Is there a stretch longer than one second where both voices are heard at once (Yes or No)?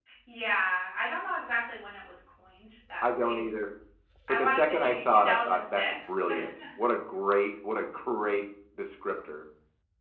Yes